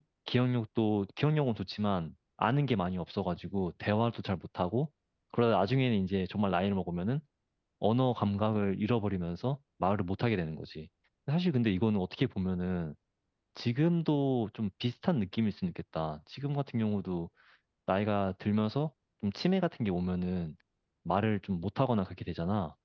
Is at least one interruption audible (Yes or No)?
No